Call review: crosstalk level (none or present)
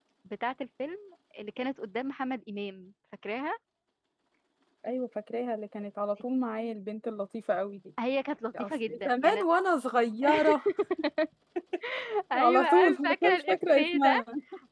present